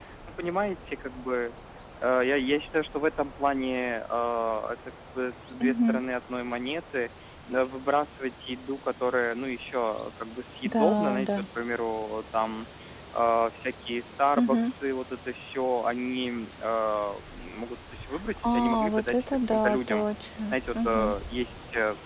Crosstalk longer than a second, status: present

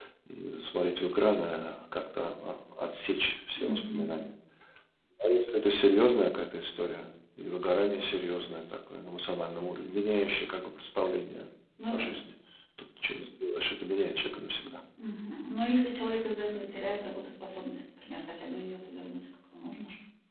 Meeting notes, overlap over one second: none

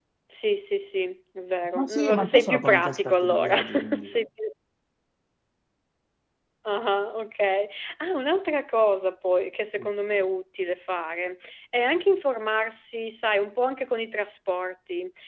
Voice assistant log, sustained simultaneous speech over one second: present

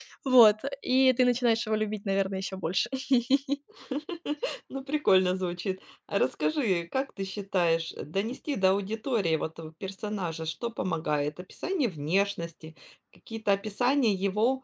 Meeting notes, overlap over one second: none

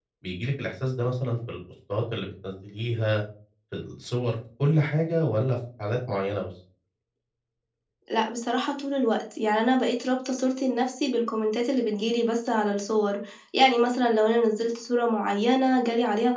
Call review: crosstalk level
none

